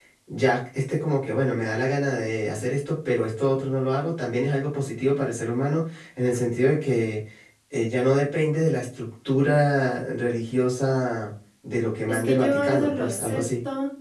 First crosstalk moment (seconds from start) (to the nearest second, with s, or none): 12 s